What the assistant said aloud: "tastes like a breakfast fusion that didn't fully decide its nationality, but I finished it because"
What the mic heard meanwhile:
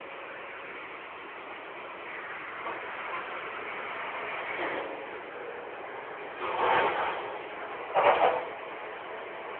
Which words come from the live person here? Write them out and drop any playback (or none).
none